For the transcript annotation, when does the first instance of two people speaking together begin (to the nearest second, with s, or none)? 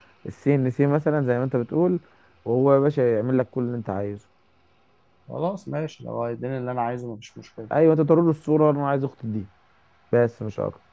none